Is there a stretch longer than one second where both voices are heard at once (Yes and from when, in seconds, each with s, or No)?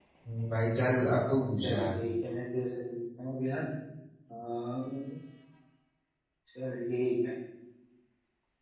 No